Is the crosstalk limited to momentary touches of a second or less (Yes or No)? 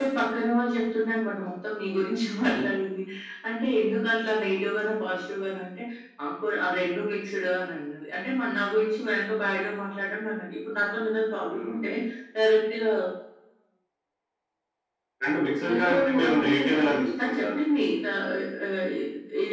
No